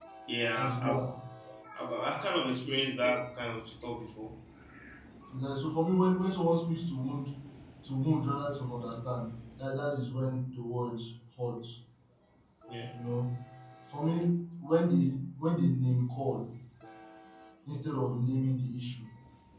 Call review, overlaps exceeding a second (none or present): none